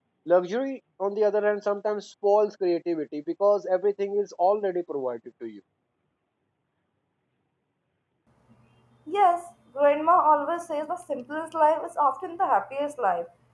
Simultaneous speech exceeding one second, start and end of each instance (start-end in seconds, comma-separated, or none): none